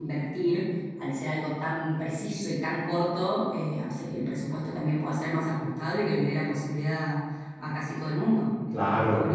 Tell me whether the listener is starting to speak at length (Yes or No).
Yes